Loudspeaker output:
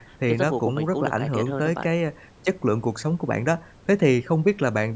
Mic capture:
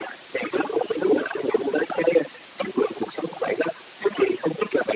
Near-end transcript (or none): none